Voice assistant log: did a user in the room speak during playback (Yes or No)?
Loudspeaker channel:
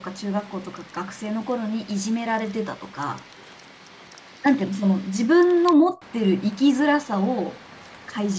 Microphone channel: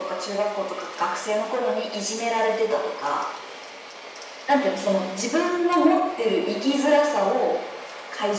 No